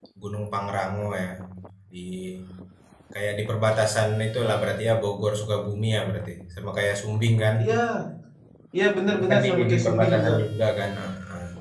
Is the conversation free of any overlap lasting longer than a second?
No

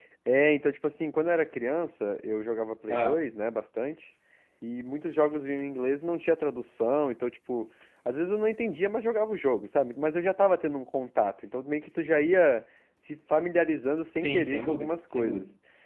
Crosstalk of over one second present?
Yes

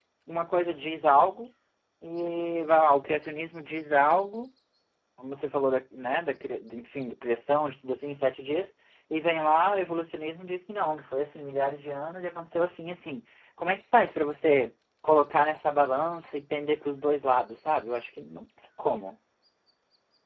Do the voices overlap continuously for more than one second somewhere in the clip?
No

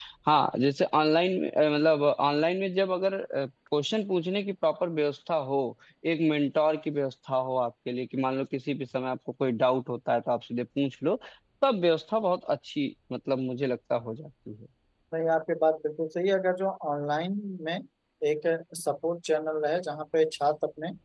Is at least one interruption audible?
No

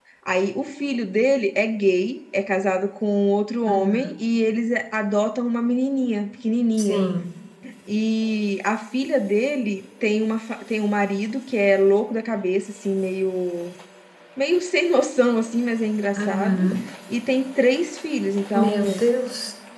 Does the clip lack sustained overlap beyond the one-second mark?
Yes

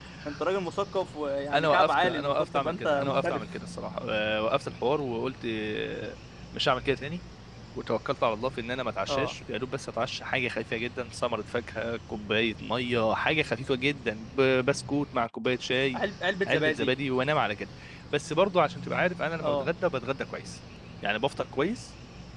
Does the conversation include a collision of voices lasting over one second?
Yes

